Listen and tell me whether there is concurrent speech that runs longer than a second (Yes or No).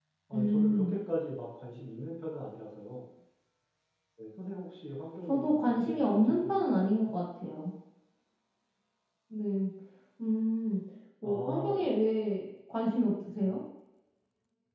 Yes